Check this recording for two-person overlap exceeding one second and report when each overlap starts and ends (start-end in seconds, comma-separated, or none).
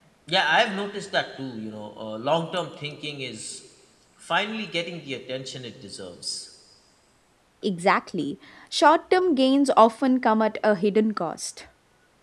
none